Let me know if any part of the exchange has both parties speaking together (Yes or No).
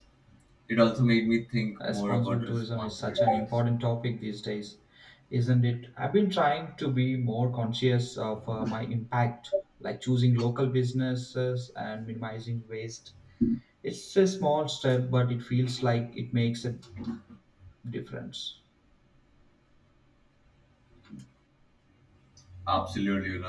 Yes